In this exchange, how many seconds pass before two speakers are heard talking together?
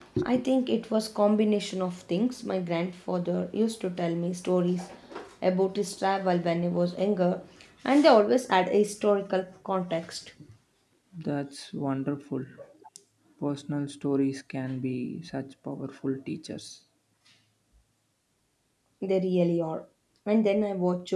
none

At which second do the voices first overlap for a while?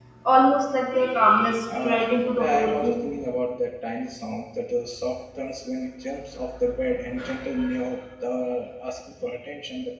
1.8 s

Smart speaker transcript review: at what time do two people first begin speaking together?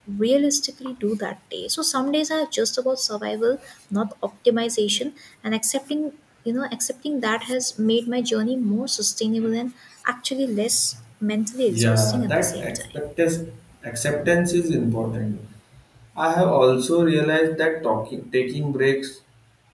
11.7 s

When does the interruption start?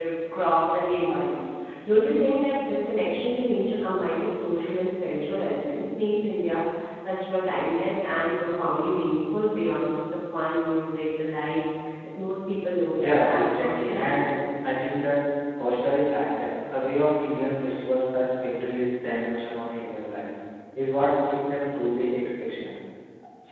13.0 s

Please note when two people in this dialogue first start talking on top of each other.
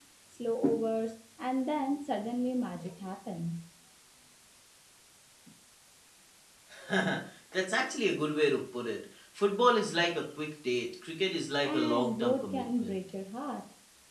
11.6 s

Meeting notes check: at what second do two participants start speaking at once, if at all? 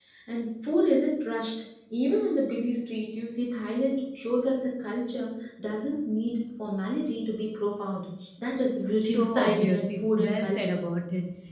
8.9 s

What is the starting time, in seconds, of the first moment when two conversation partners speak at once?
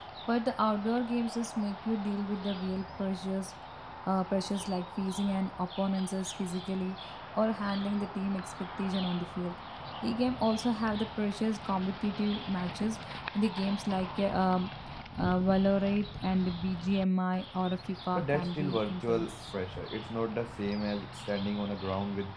18.1 s

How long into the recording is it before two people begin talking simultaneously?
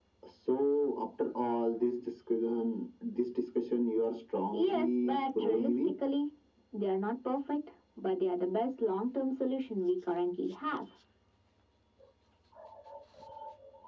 4.5 s

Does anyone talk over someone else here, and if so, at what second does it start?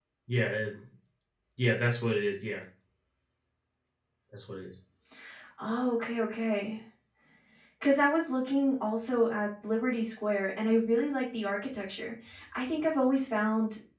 none

